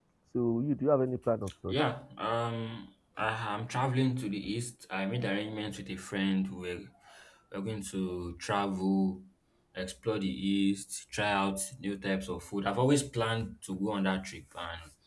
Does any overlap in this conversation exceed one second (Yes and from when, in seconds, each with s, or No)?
No